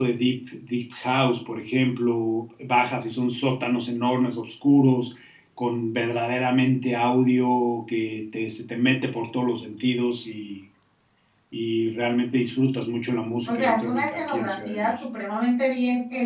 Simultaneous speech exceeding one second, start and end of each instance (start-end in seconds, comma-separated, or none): 13.5-14.9